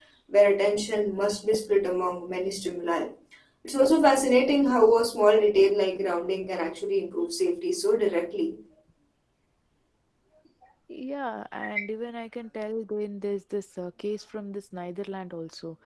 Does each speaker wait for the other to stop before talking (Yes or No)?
Yes